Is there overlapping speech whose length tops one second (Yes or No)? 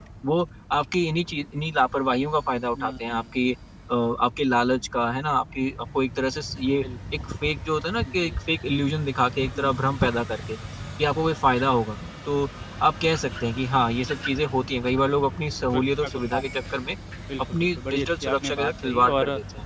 Yes